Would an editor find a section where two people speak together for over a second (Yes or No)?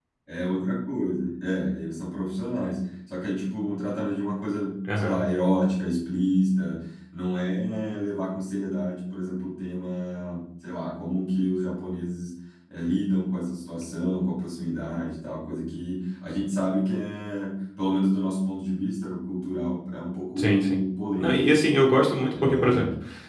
No